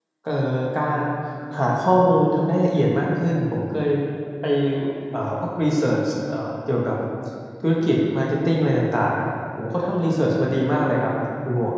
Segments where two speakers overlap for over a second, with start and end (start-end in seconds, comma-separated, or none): none